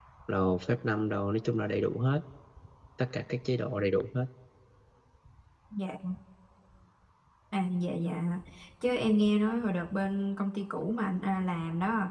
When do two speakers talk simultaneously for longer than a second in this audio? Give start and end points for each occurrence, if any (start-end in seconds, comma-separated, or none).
none